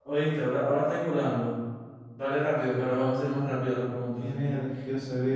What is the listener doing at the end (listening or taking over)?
taking over